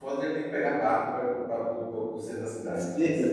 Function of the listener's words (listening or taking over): taking over